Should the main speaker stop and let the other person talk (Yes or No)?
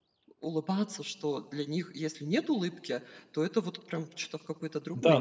Yes